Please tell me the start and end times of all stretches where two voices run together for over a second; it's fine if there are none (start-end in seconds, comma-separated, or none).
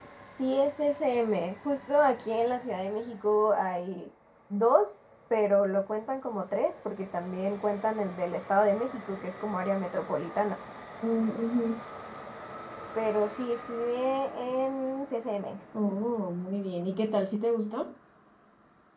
none